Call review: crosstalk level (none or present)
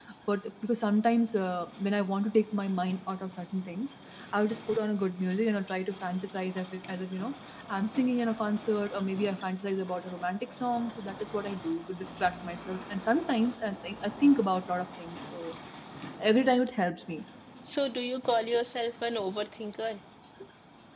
none